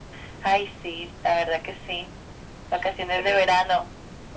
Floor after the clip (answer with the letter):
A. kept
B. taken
B